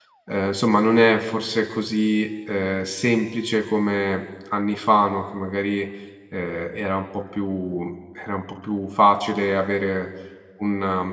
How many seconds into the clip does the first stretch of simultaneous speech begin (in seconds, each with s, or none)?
none